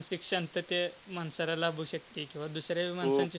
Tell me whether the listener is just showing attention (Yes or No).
Yes